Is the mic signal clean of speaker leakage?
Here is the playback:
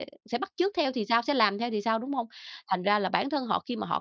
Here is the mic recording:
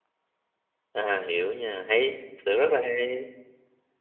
Yes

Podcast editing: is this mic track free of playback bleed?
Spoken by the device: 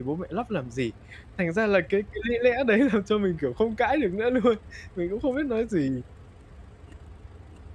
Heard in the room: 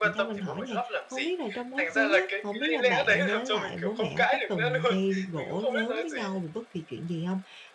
No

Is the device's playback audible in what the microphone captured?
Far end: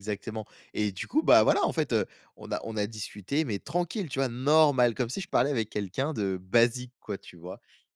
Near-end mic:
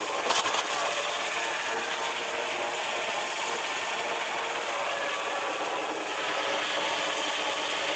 No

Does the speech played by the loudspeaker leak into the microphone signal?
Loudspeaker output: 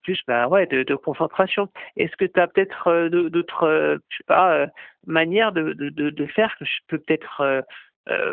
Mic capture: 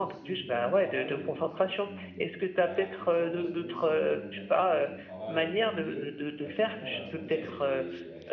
Yes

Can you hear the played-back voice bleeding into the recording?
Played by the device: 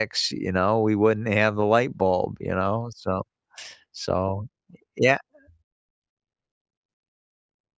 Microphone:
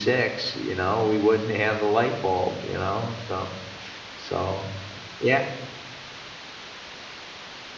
Yes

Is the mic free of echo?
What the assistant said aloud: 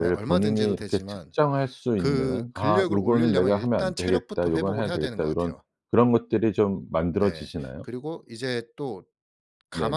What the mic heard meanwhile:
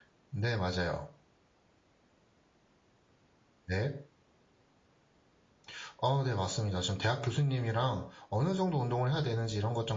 Yes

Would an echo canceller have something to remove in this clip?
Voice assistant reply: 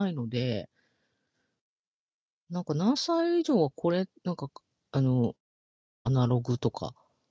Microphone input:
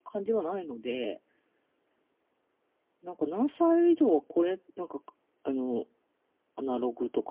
Yes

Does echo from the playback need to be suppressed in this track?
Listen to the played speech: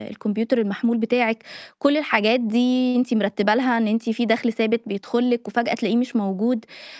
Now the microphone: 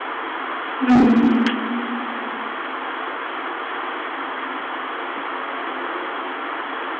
No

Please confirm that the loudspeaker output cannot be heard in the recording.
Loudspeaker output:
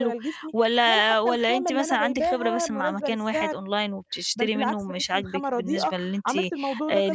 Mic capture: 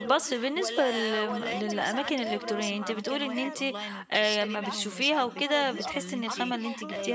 No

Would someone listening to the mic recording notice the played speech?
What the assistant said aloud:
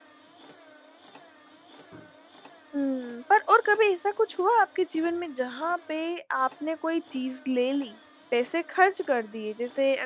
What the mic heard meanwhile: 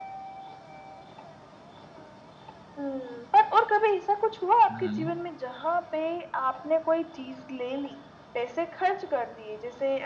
Yes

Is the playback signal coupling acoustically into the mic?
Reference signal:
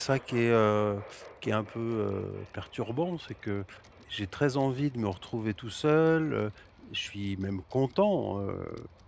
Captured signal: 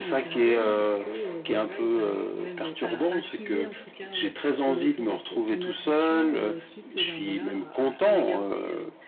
Yes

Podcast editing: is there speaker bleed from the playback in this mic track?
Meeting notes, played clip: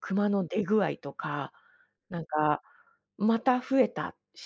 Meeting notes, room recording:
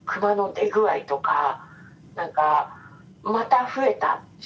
Yes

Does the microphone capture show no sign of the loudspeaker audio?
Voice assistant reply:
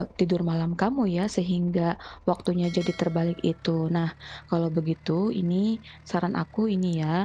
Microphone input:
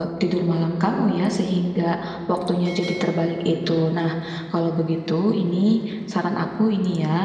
No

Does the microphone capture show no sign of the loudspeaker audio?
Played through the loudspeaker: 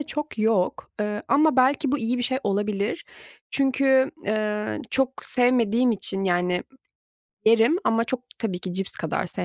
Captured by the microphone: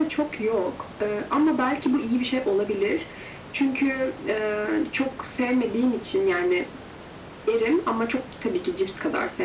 No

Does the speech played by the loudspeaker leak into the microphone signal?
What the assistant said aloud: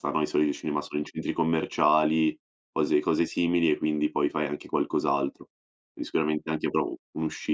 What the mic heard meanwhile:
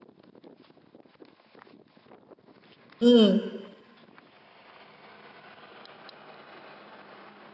No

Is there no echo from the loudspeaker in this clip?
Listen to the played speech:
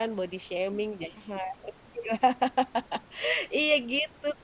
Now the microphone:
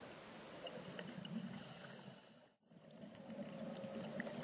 Yes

